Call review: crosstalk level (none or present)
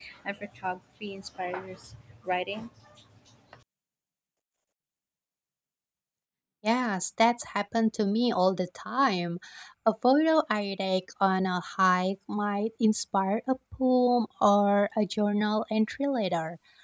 none